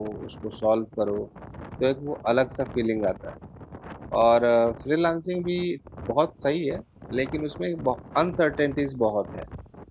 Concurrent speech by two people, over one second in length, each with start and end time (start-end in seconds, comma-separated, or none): none